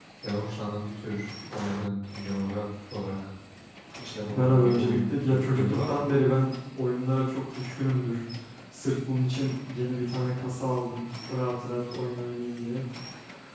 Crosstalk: present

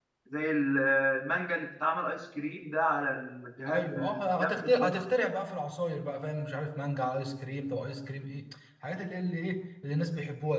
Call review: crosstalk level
present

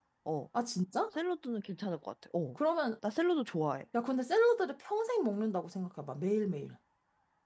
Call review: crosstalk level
none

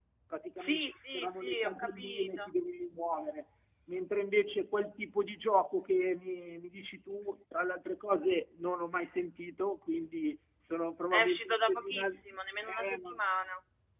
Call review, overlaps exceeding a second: present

